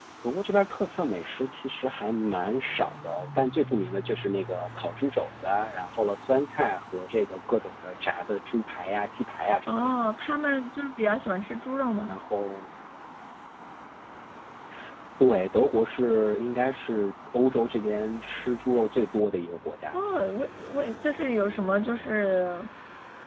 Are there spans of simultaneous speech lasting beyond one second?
No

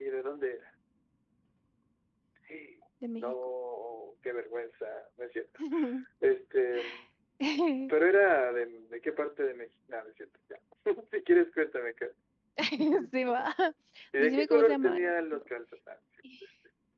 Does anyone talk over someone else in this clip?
Yes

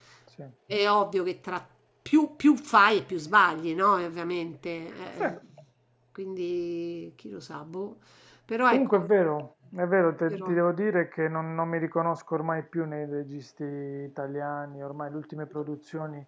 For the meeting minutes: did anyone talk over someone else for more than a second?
No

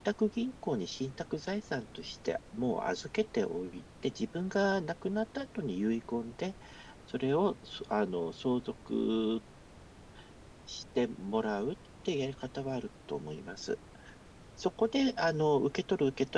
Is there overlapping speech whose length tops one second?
No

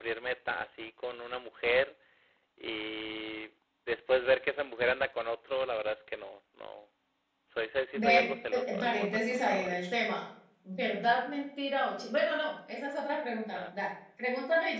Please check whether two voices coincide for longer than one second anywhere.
Yes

